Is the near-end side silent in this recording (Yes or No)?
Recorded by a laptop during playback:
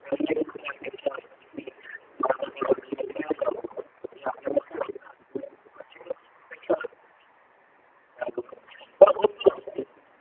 Yes